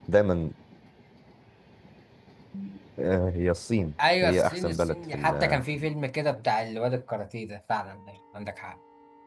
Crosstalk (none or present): present